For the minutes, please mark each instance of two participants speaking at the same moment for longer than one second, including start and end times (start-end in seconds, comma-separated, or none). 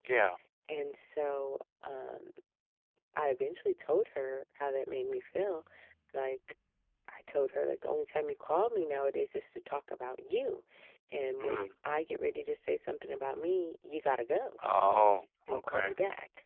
none